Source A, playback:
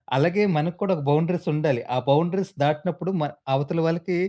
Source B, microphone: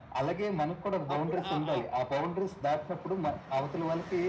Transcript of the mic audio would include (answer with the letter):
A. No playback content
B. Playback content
B